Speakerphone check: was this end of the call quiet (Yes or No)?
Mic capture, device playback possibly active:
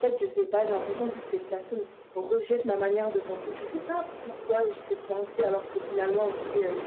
Yes